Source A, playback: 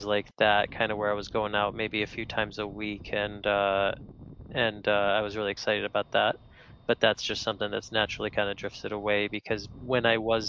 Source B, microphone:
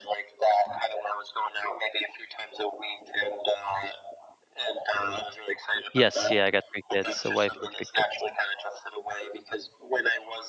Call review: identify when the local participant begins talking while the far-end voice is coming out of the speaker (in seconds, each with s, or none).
5.9 s